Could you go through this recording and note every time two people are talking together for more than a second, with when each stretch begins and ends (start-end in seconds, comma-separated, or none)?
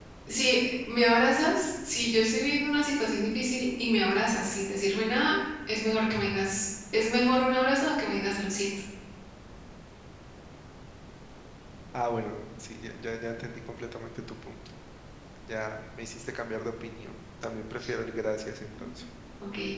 none